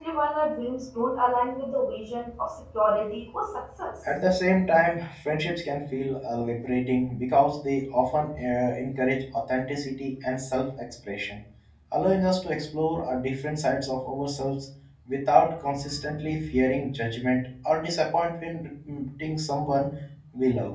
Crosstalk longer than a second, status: none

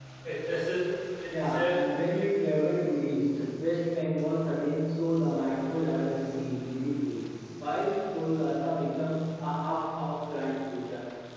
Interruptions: present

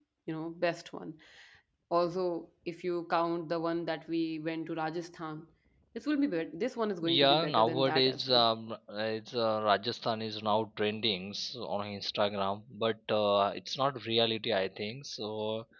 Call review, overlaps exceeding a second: present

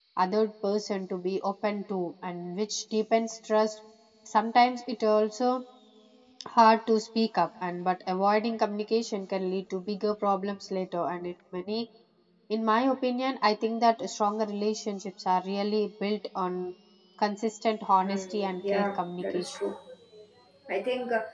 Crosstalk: present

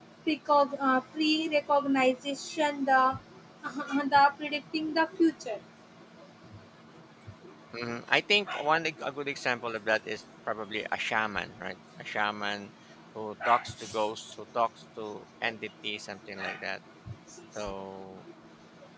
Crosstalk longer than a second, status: none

